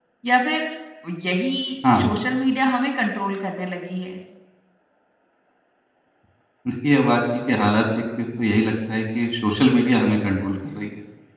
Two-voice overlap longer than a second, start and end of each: none

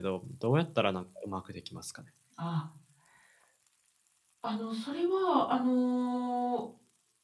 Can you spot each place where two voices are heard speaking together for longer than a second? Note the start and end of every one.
none

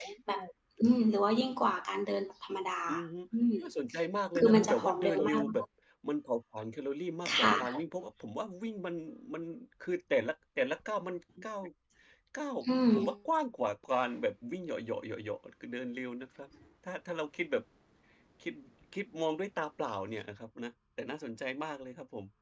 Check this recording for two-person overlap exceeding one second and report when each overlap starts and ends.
4.4-5.7

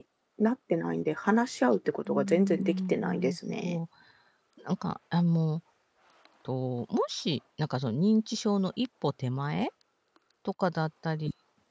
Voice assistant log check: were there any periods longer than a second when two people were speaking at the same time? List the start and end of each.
2.1-3.8

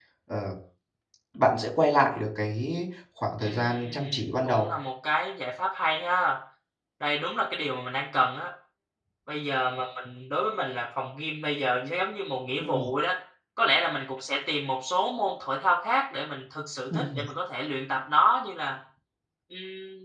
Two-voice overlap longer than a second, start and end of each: 3.4-4.7

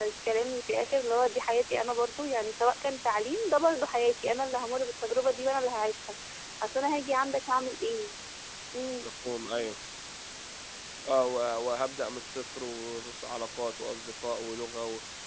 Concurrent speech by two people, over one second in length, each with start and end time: none

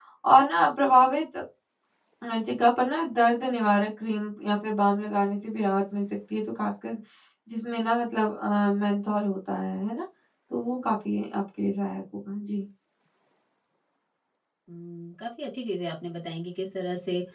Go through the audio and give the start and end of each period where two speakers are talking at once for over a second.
none

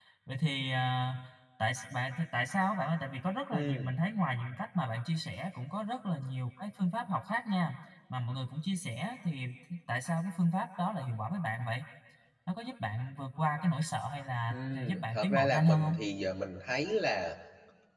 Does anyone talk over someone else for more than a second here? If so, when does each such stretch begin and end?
14.5-15.9

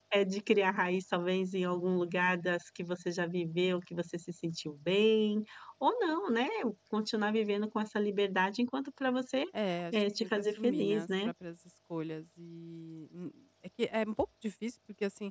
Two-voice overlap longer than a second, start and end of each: 9.9-11.3

